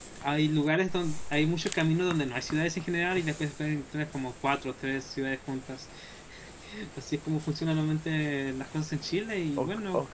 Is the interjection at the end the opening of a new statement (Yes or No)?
Yes